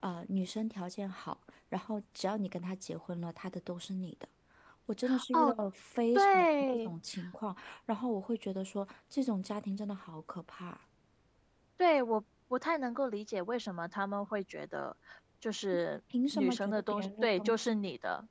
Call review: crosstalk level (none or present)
present